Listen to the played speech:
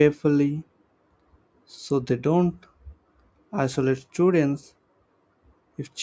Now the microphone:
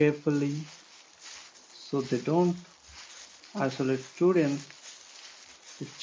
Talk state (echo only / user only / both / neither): echo only